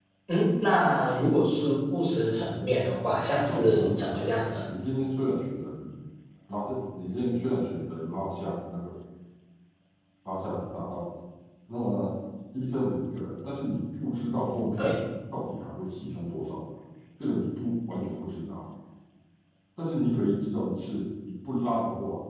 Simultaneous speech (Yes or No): Yes